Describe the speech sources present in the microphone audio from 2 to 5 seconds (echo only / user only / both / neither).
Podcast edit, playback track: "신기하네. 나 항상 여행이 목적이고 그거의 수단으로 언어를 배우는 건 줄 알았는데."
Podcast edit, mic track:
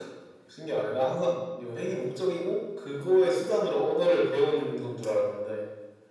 echo only